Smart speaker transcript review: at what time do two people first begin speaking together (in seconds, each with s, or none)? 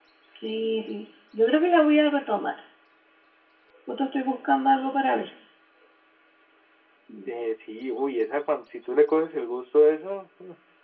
none